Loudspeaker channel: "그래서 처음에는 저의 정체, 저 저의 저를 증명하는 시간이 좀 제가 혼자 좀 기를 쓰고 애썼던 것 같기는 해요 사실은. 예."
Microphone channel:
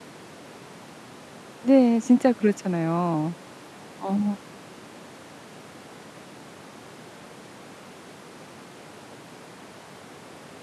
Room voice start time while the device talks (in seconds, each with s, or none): 1.6 s